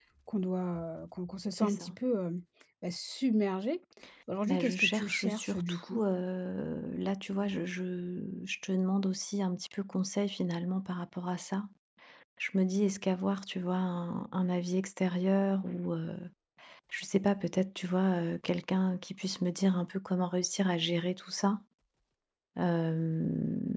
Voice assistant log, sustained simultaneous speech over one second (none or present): present